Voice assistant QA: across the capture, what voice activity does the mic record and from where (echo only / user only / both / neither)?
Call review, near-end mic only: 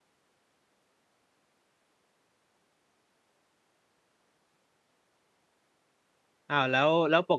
user only